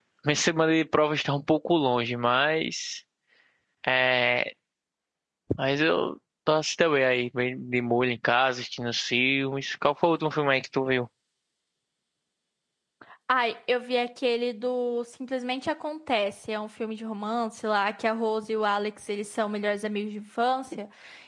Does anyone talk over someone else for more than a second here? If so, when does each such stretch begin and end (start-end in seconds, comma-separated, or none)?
none